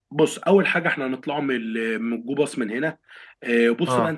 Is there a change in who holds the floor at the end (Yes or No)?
No